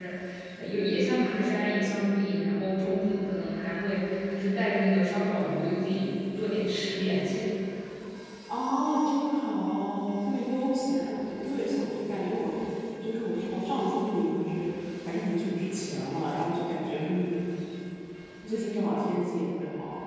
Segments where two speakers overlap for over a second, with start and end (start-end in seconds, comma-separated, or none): none